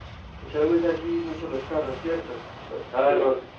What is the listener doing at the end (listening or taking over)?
taking over